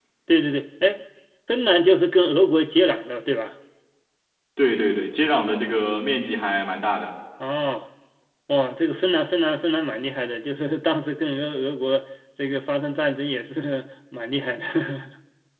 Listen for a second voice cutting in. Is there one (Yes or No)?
No